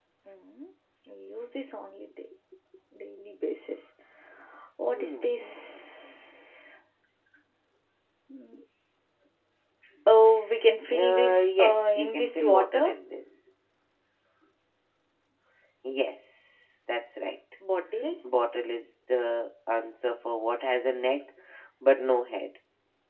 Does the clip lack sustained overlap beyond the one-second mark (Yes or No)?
No